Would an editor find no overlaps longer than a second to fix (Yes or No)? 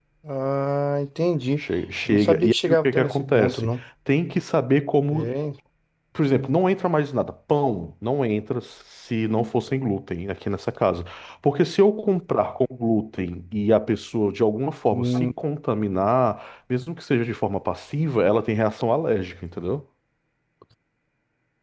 No